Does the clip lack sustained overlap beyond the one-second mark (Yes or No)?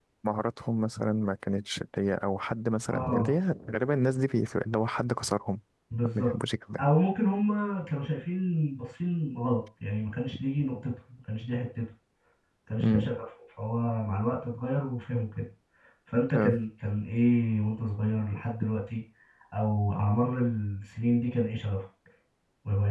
Yes